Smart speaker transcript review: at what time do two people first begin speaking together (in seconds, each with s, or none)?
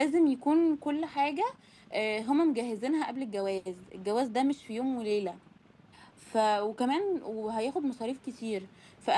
none